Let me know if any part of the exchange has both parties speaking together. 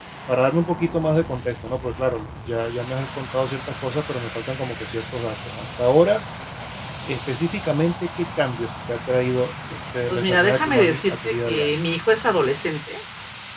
Yes, from 10.1 s

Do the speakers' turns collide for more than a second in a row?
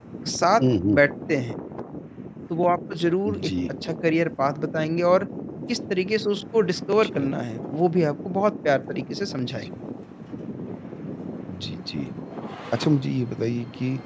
No

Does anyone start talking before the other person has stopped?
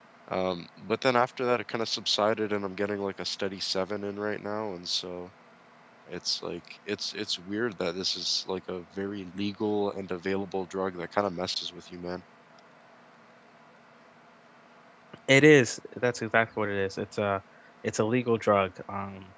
No

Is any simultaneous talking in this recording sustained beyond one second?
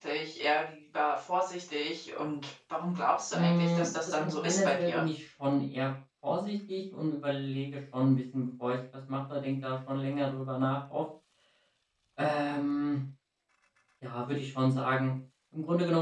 Yes, from 3.3 s

